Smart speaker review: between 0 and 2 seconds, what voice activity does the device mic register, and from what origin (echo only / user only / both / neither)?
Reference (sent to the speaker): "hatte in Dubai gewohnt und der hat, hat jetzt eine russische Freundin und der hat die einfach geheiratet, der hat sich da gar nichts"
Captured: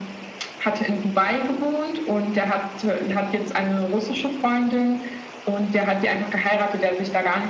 echo only